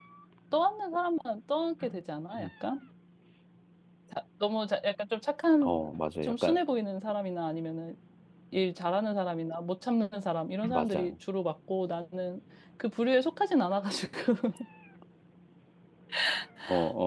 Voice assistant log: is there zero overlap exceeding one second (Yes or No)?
Yes